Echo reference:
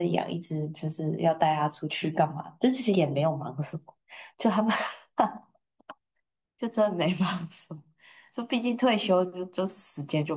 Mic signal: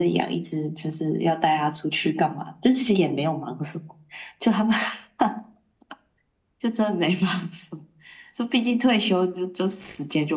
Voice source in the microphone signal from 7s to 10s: echo only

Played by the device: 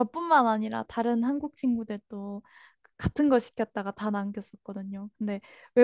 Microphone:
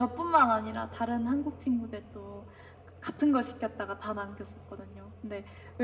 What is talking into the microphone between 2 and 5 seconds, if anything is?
echo only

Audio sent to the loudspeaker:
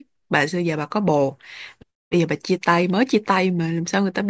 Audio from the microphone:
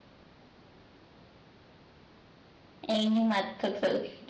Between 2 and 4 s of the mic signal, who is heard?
user only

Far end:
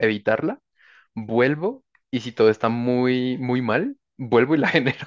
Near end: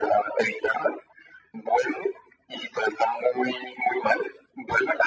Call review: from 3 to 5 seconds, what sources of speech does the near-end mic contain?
echo only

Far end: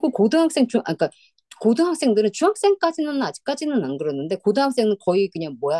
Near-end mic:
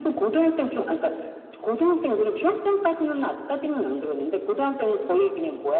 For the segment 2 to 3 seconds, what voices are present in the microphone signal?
echo only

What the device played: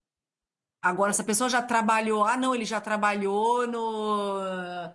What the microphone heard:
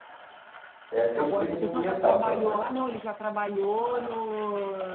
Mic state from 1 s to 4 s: both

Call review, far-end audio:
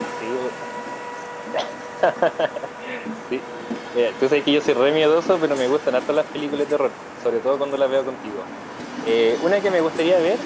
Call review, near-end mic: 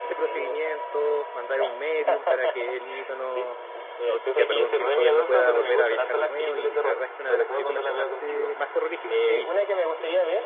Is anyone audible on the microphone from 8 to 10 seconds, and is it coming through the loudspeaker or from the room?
both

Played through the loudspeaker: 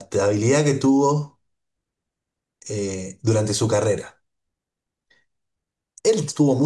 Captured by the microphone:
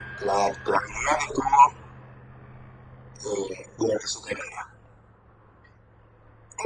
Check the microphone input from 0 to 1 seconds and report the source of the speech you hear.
echo only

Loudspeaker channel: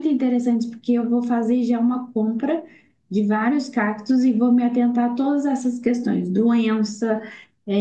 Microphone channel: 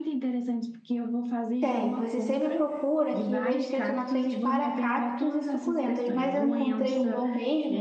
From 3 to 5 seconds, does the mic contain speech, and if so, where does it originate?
both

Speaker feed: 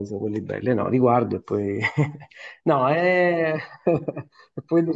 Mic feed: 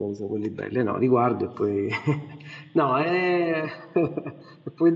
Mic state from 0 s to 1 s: echo only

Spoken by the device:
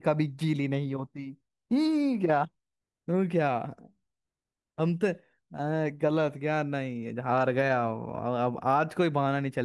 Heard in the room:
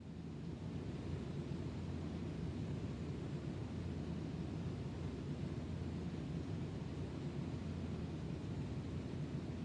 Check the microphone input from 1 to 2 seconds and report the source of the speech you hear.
neither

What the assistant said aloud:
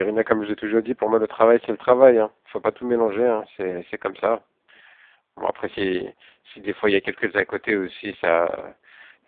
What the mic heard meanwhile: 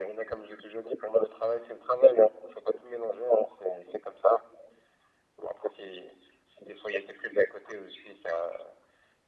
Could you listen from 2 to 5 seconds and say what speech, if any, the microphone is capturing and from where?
echo only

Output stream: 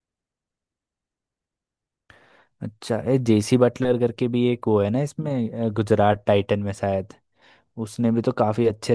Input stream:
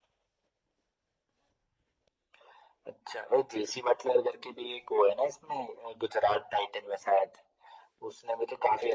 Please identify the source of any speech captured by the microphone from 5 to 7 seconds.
echo only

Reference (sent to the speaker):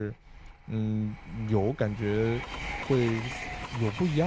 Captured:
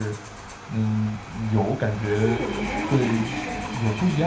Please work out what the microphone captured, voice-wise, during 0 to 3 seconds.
both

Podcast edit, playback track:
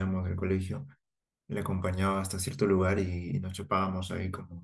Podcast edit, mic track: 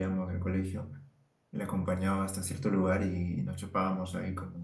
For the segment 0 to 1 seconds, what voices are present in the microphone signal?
echo only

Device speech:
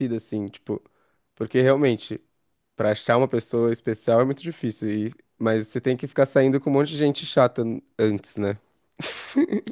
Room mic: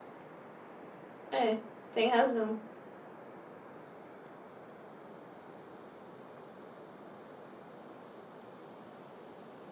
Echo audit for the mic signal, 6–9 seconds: neither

